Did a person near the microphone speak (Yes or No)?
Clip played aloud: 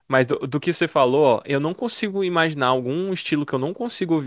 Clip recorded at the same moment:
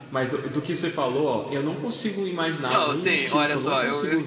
Yes